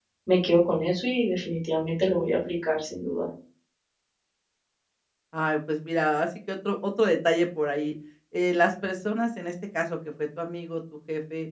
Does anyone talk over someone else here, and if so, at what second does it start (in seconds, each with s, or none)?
none